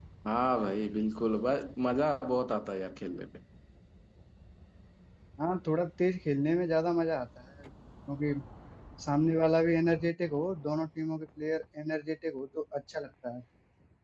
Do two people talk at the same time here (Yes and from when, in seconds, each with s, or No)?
No